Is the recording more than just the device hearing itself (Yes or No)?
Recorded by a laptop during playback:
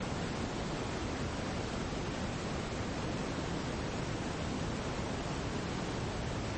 No